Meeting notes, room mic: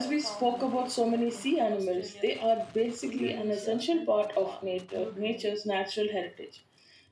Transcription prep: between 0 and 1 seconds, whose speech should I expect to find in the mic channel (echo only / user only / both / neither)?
both